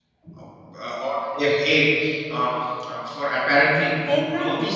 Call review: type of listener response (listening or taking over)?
listening